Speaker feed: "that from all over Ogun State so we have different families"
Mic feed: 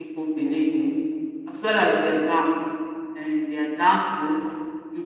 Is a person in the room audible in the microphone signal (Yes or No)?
Yes